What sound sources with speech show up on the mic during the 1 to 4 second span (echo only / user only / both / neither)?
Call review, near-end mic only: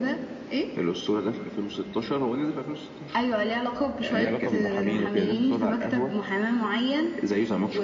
echo only